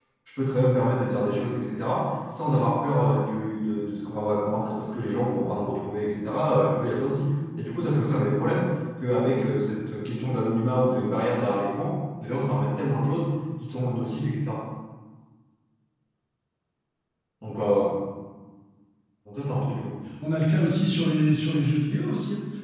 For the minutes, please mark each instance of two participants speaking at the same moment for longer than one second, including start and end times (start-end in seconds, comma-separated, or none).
none